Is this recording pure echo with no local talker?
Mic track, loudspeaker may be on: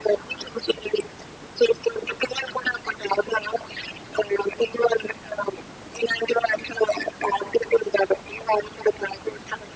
Yes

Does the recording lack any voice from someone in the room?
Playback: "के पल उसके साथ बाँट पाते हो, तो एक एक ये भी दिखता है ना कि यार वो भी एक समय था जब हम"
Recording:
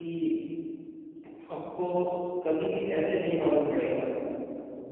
No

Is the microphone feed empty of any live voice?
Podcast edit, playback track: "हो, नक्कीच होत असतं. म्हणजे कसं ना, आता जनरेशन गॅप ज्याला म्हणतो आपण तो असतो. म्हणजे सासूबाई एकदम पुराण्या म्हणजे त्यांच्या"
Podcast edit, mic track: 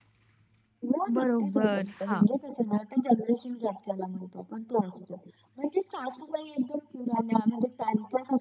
No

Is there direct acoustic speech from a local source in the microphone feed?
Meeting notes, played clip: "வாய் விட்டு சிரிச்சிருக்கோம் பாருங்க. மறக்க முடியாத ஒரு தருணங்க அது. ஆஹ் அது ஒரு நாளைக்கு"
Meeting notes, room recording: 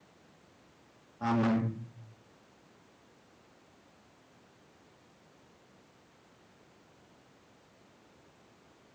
Yes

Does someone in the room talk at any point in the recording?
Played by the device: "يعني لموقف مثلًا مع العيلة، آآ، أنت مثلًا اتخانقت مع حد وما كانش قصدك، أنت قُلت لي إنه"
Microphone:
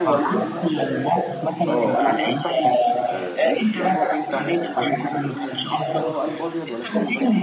Yes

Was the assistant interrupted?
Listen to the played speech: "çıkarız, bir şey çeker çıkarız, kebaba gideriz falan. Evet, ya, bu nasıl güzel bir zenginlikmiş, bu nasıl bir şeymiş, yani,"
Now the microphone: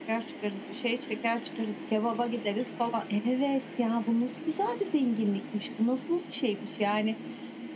No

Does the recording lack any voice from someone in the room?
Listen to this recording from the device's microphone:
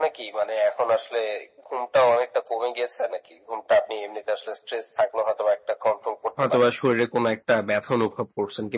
No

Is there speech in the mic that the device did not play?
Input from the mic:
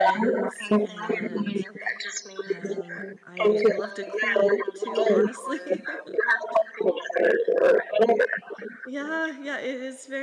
Yes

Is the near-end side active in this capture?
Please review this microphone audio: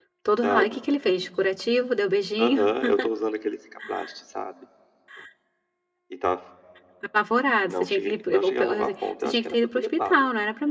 Yes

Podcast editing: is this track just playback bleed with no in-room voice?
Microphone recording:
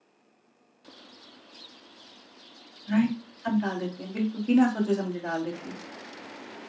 No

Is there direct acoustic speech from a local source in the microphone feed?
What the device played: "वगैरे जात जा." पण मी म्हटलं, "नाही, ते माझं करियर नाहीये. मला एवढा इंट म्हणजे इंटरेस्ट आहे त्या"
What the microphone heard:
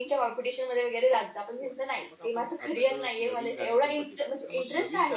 Yes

